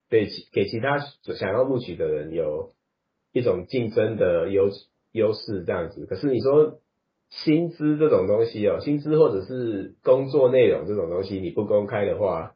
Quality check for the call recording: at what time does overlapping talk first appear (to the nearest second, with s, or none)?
none